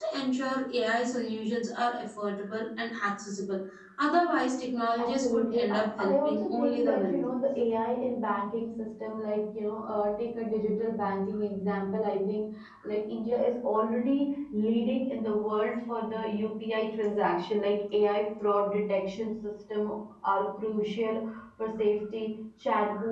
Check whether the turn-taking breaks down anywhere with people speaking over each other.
Yes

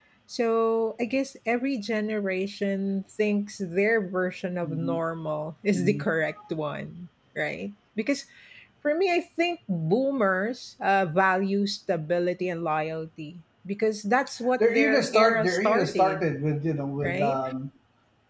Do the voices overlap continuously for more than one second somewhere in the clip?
Yes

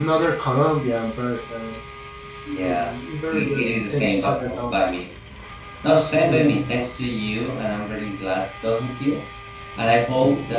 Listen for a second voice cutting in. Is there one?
Yes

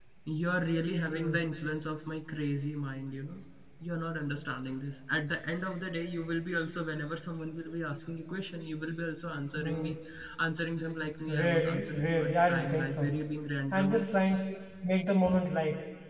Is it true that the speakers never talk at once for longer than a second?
No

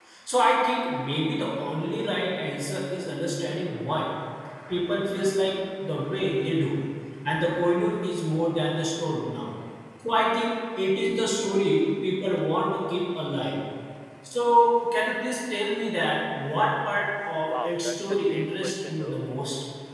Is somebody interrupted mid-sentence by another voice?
Yes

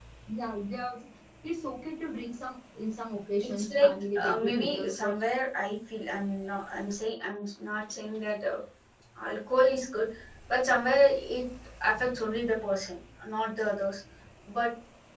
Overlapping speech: Yes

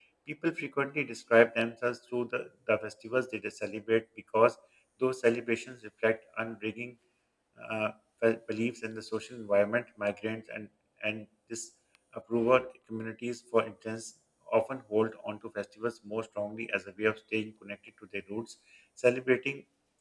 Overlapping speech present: No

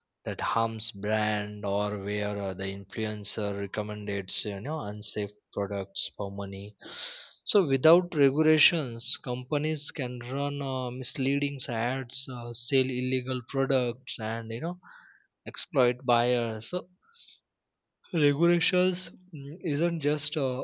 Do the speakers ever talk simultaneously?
No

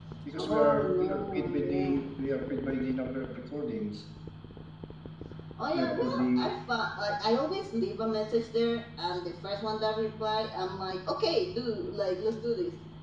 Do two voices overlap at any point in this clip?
Yes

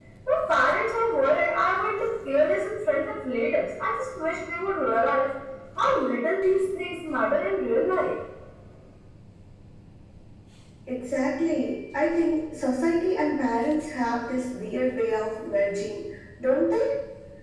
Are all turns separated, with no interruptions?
Yes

